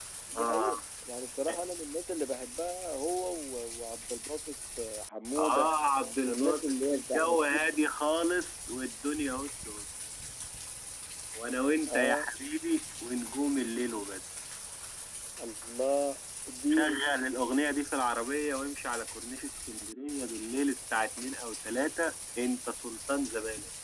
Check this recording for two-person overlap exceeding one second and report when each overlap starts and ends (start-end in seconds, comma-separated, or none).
6.2-7.7